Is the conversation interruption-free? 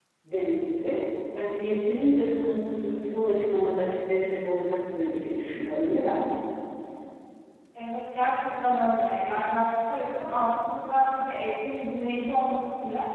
Yes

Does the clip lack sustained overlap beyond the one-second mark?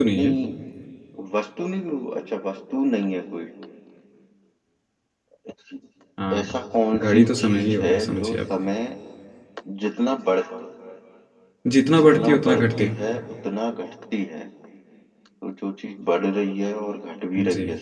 No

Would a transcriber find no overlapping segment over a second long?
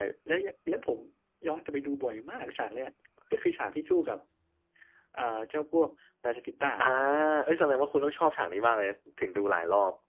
Yes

